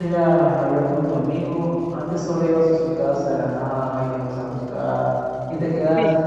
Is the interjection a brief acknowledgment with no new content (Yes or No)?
Yes